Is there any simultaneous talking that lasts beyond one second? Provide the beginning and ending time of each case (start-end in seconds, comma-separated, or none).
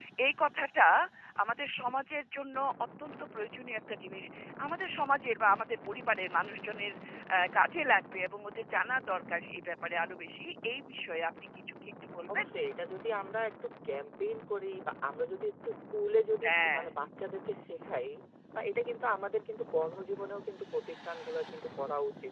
none